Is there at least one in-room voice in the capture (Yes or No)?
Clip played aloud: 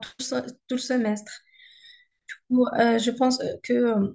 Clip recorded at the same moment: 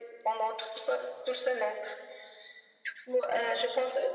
No